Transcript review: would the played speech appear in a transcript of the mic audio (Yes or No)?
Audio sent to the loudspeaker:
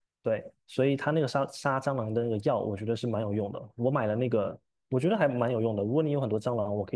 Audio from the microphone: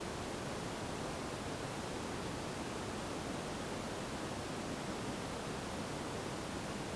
No